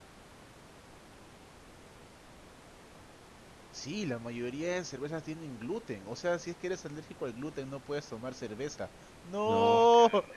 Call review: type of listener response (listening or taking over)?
taking over